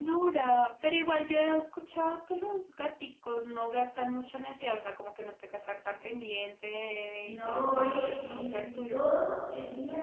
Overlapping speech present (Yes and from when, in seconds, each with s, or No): Yes, from 7.2 s